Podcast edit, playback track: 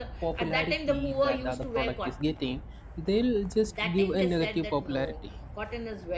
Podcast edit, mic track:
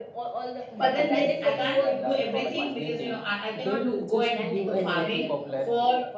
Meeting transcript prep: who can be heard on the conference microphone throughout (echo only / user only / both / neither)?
both